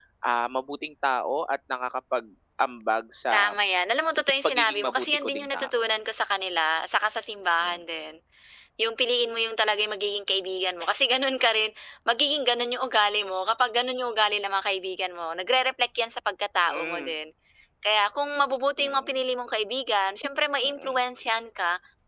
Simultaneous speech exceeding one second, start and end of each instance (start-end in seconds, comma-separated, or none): 4.4-5.8